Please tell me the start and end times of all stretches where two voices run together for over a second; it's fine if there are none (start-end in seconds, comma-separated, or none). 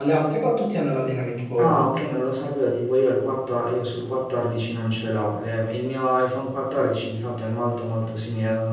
none